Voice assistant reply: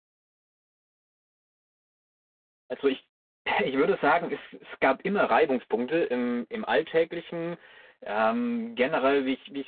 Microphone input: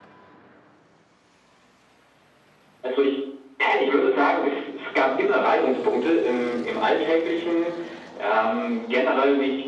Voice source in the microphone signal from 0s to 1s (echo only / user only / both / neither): neither